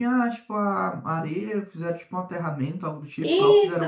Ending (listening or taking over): taking over